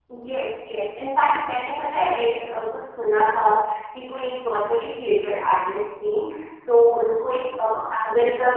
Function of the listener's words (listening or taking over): listening